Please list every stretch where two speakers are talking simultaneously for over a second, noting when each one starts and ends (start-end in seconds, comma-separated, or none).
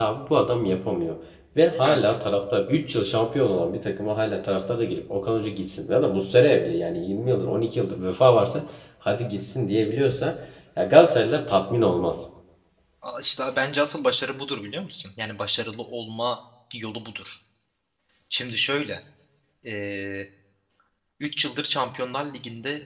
none